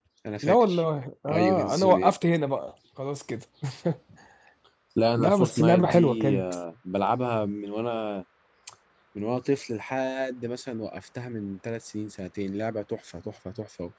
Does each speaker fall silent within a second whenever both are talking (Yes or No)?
No